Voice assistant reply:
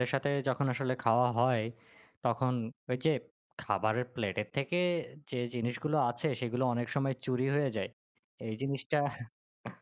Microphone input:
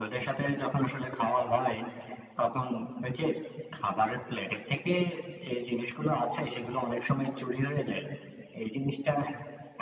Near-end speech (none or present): none